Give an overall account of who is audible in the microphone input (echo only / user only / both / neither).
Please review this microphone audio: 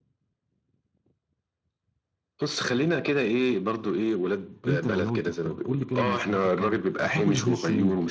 both